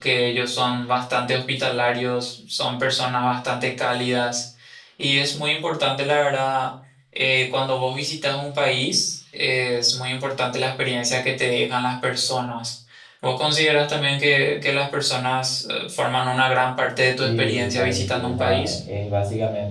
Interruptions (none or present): present